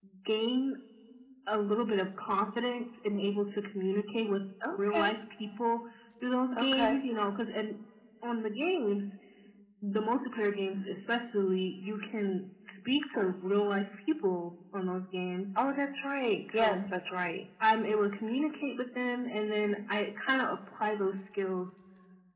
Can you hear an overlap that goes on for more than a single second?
No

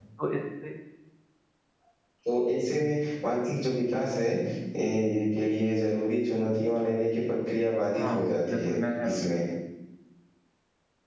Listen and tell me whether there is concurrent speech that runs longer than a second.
Yes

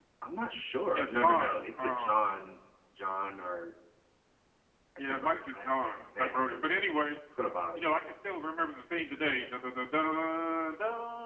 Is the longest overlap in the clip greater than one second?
Yes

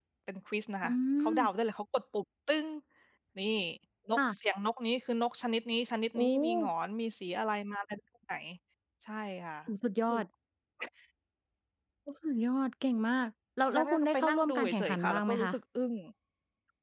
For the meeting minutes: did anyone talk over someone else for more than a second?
Yes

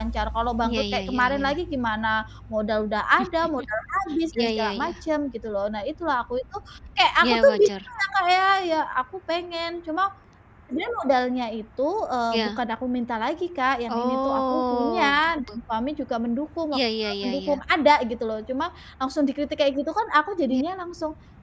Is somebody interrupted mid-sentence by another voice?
Yes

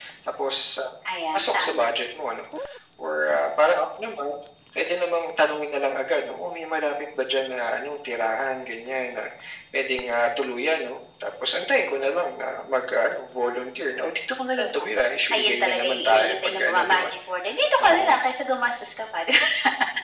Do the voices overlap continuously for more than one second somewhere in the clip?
Yes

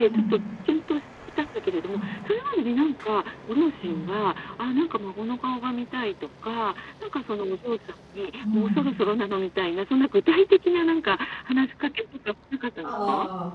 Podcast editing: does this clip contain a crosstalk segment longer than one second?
No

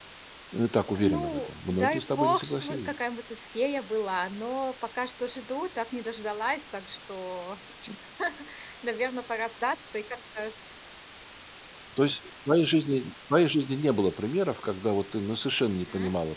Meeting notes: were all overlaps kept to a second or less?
No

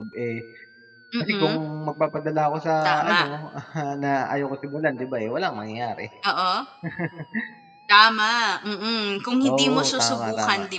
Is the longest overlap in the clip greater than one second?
Yes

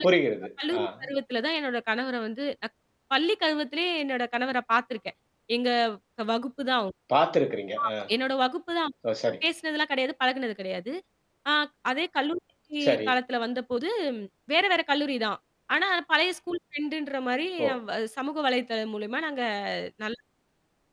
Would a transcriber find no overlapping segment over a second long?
Yes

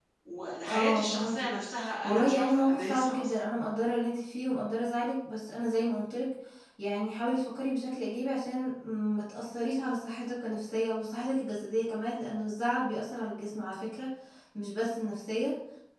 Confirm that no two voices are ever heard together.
No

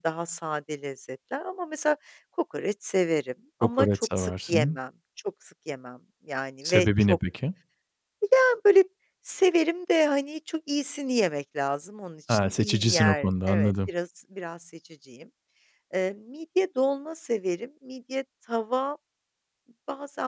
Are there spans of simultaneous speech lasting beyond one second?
Yes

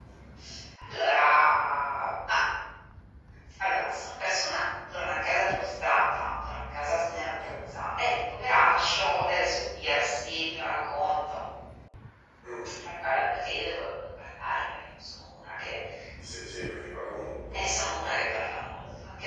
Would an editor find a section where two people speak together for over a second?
No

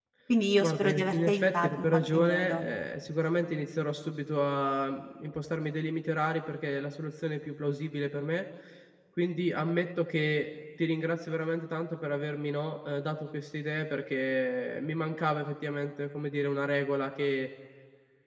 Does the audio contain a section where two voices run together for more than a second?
Yes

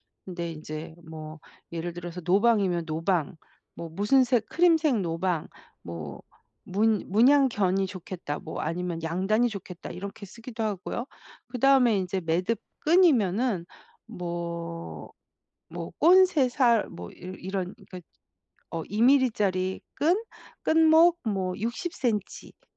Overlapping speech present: No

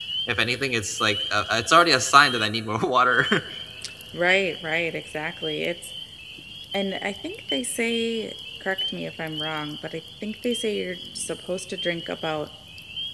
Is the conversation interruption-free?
Yes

